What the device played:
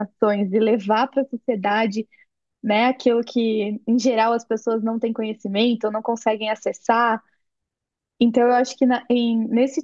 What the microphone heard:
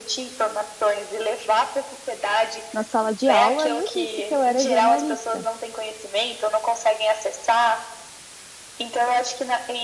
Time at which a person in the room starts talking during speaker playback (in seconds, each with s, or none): 2.7 s